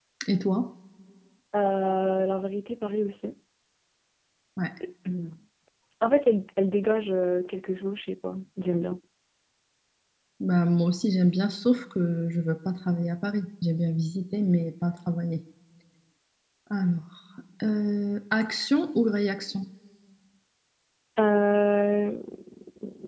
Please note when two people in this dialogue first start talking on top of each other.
none

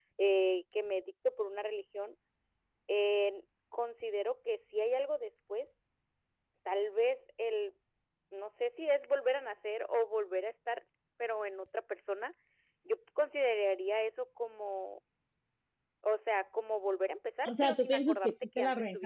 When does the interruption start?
17.4 s

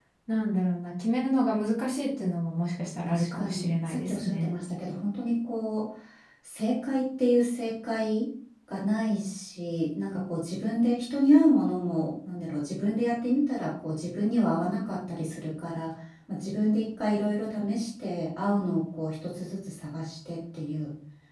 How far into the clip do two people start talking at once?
3.1 s

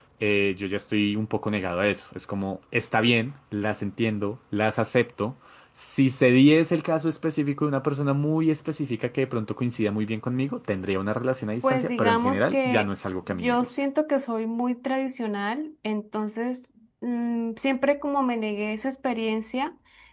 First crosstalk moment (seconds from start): 11.6 s

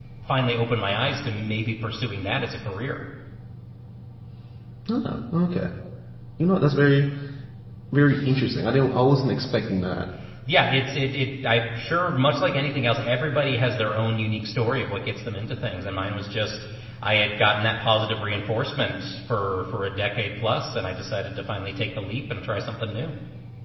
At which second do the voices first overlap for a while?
none

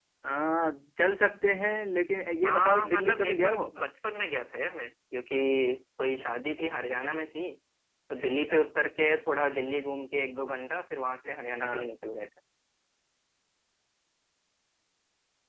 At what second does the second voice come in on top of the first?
2.5 s

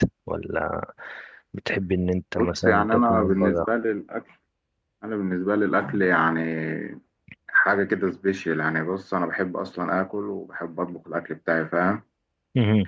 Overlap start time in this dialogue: 2.4 s

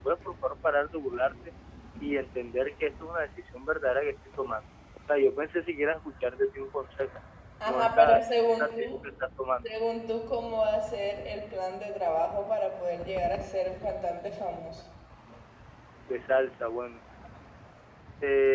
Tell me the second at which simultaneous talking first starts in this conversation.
7.7 s

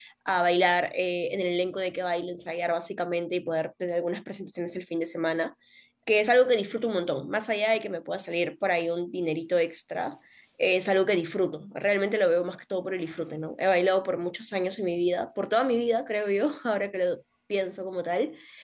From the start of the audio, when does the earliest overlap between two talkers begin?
none

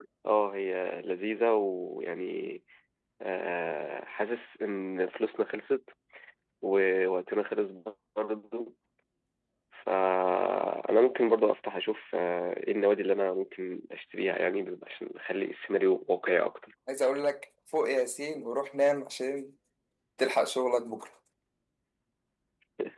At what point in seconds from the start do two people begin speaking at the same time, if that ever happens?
none

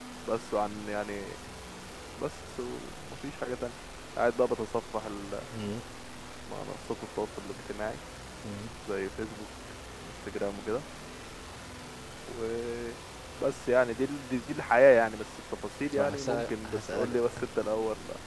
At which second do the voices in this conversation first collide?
15.9 s

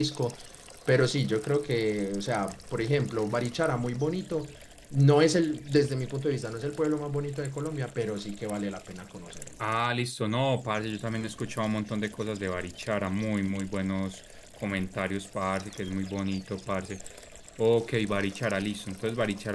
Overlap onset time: none

